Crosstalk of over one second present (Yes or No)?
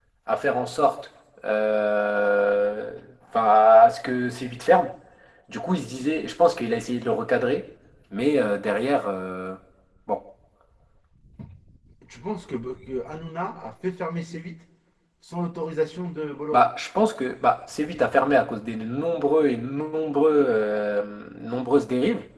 No